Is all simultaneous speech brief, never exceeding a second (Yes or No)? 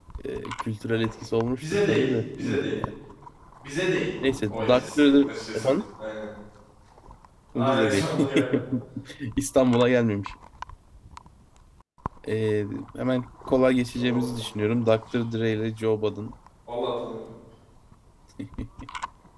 No